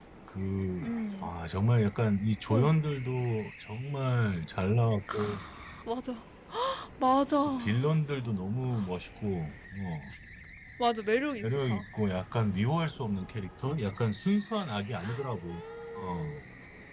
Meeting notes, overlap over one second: none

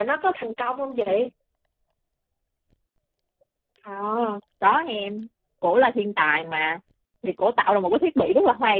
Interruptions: none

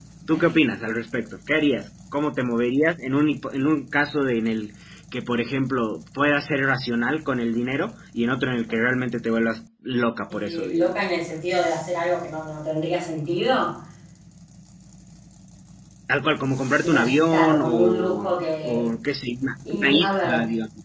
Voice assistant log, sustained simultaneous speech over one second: present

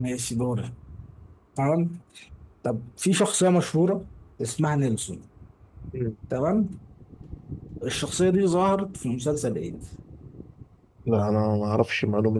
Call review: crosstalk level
none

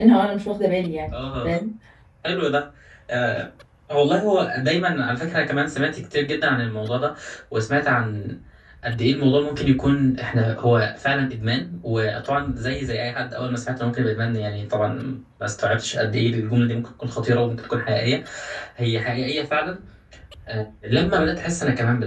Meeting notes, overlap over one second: none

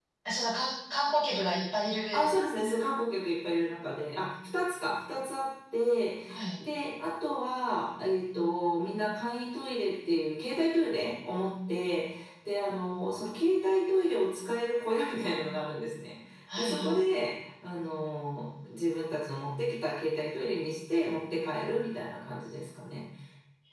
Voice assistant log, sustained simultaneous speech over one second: none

